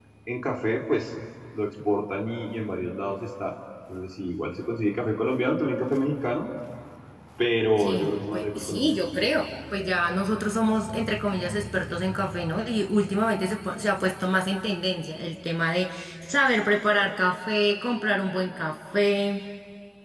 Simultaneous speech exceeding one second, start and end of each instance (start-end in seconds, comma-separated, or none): 7.8-9.0